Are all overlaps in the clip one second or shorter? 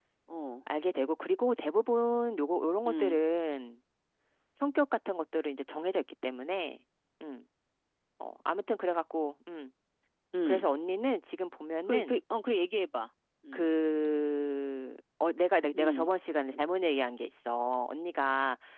Yes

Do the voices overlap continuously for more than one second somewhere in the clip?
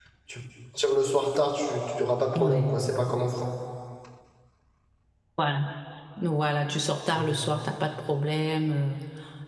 No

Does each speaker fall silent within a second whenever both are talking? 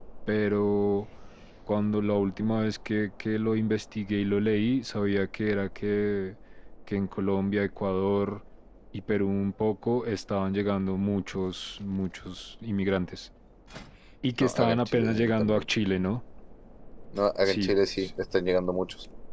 No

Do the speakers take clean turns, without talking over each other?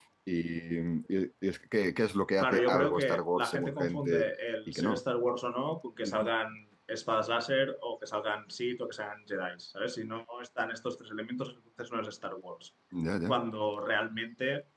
No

